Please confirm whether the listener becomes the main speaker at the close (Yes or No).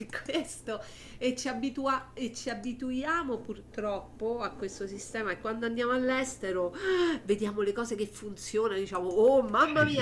No